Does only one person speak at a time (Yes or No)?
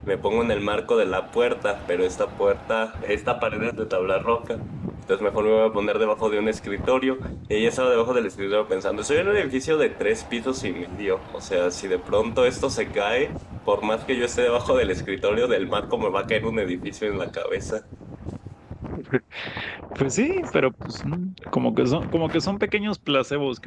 Yes